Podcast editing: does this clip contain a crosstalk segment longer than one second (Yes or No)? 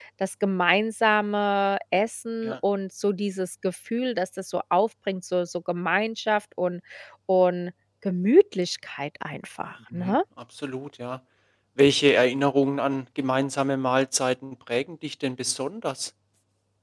No